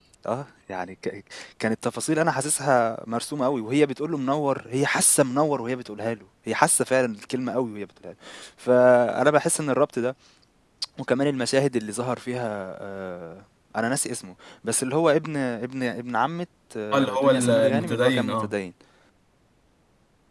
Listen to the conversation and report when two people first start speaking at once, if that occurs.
16.9 s

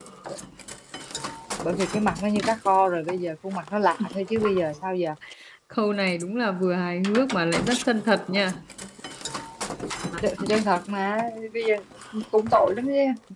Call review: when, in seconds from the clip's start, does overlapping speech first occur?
none

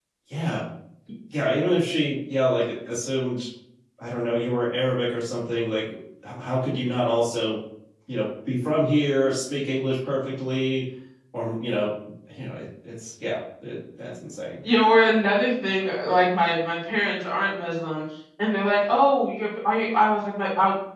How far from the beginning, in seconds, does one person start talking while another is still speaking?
none

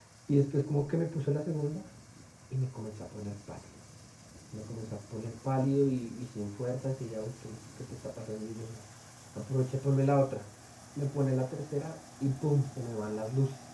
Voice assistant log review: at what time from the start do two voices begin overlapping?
none

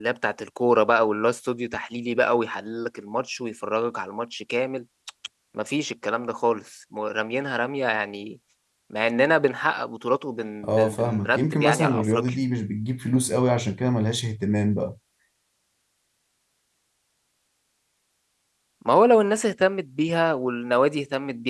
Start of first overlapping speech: 10.6 s

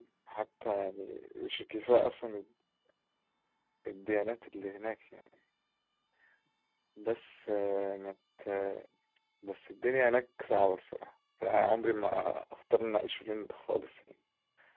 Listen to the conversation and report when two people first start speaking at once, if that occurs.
none

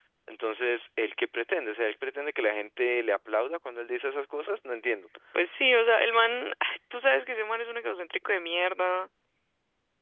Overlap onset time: none

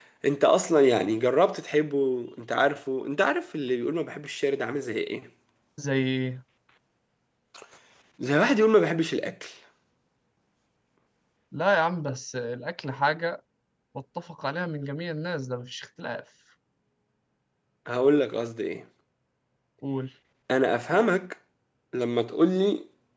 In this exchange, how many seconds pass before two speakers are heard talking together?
none

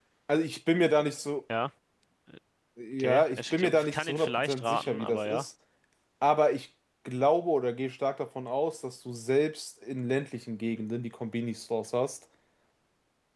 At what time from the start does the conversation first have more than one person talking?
3.0 s

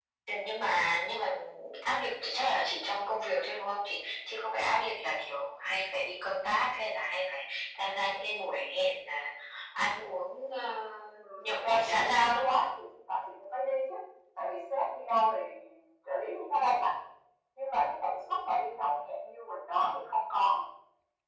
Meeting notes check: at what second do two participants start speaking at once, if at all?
11.4 s

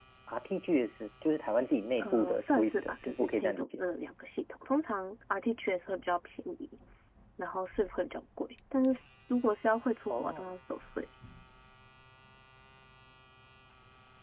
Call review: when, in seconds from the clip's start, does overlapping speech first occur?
2.0 s

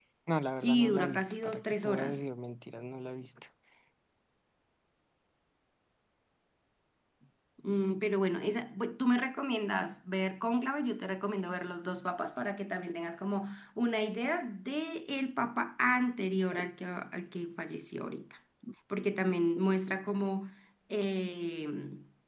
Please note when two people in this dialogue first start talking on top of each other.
0.6 s

